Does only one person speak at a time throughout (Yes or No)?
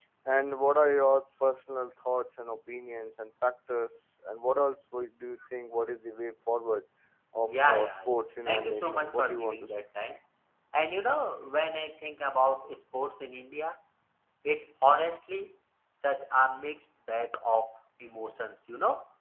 No